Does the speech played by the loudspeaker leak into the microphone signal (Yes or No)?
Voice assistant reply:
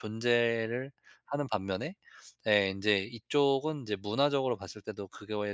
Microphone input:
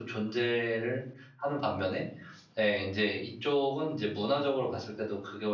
Yes